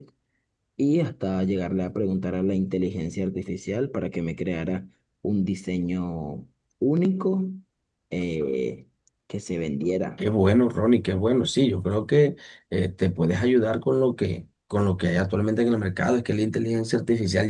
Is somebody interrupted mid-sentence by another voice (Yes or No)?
No